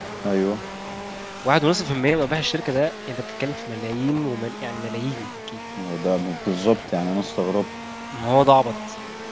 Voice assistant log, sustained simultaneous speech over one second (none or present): none